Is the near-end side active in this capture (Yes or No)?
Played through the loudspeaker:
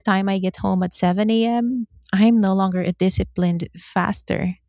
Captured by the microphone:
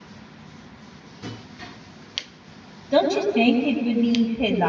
Yes